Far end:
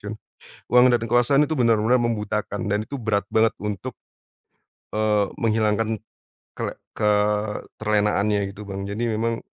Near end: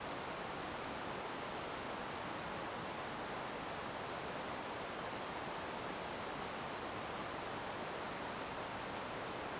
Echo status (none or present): none